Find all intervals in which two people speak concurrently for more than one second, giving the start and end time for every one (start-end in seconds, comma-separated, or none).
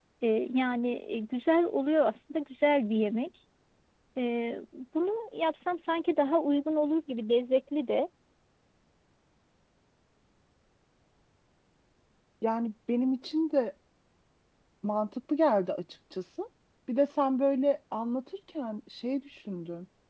none